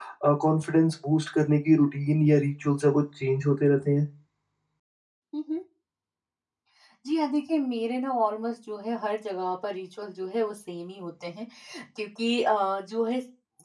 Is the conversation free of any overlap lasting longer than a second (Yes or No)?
Yes